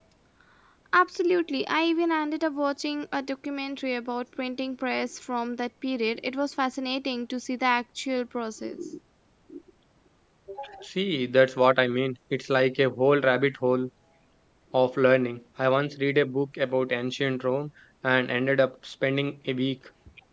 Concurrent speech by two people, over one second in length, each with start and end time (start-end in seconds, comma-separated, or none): none